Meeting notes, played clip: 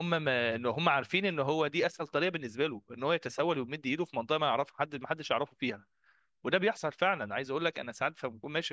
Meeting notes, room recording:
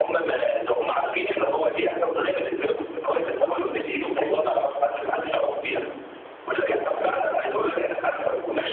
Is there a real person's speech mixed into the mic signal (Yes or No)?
Yes